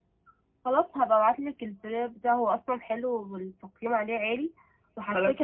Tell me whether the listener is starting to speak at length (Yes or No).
No